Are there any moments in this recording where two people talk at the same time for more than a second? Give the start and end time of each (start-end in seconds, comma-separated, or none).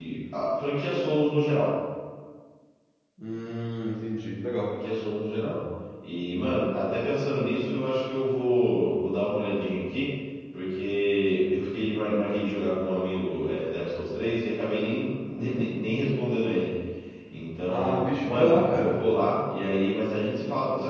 17.7-19.0